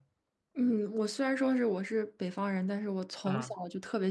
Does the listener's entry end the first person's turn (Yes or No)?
No